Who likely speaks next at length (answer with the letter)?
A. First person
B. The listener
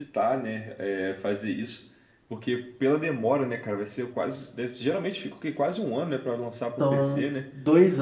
B